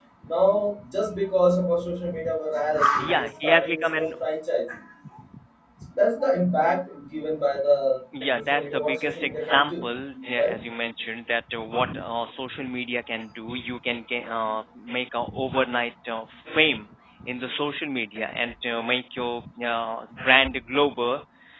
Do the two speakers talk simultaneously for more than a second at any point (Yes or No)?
Yes